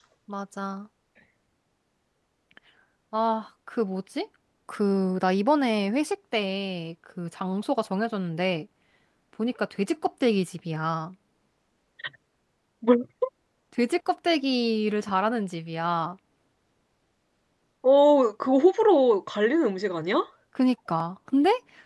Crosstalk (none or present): none